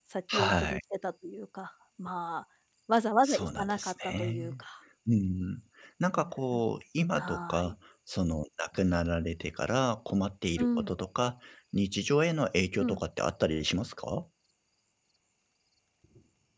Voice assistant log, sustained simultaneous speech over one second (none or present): present